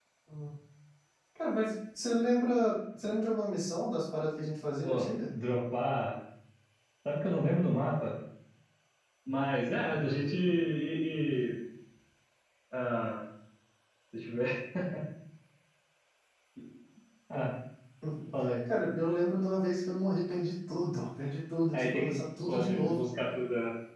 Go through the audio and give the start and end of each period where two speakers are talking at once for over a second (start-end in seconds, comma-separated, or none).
21.7-23.1